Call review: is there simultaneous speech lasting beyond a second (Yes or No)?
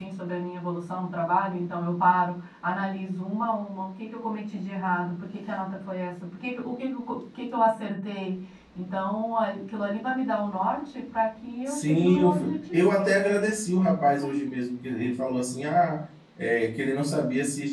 Yes